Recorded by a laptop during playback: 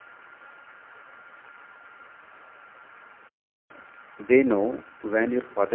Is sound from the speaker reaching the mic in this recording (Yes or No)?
No